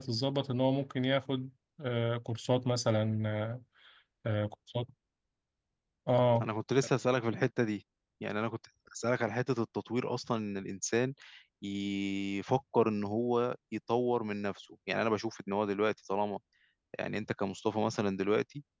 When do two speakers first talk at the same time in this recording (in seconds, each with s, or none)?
none